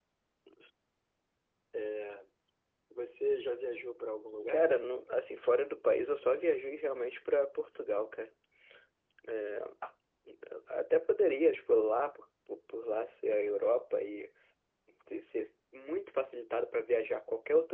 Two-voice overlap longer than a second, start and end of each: none

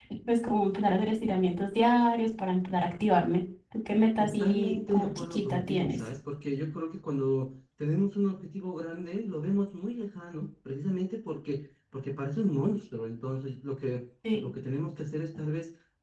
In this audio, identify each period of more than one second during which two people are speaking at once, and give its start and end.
4.2-6.0

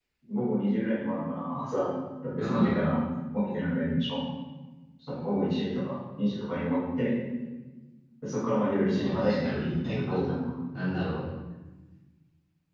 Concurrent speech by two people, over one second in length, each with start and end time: 9.0-10.3

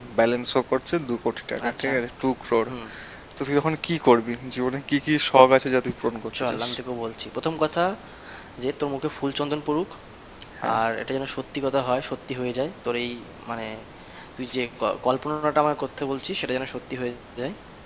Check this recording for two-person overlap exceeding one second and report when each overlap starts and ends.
none

